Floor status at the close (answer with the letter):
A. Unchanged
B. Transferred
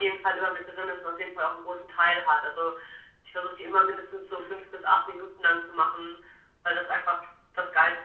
A